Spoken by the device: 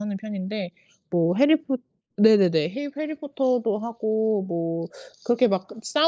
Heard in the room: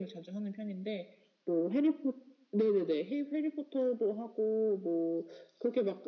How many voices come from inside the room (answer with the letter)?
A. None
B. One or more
A